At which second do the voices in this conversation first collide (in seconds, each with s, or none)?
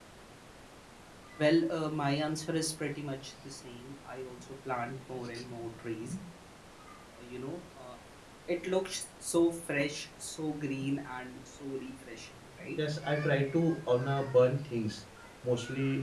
none